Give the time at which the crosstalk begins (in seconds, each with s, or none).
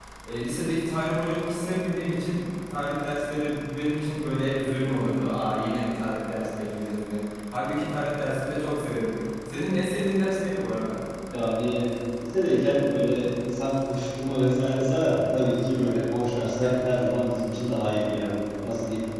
none